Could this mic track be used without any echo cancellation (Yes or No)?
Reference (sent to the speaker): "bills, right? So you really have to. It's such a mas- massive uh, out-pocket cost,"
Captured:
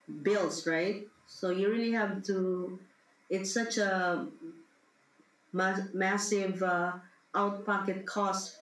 No